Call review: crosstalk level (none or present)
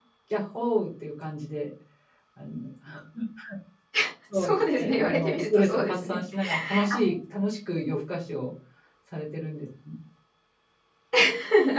present